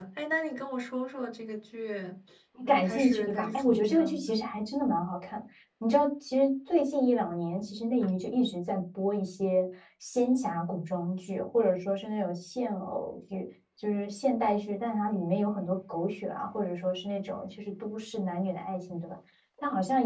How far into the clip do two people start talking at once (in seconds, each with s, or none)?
2.6 s